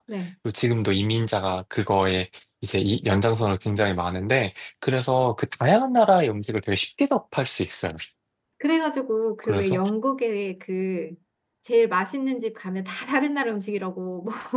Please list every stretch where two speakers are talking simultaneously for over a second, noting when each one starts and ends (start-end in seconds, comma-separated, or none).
none